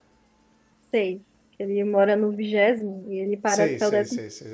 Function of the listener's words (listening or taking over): taking over